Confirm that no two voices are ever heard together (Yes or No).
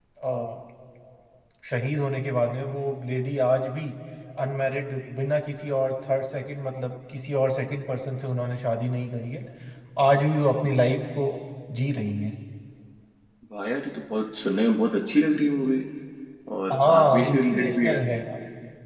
No